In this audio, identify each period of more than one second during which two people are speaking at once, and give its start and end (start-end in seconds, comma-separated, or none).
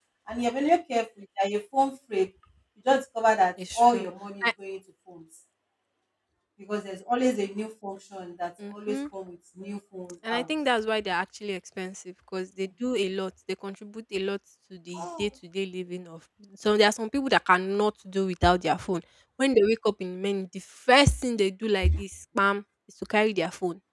none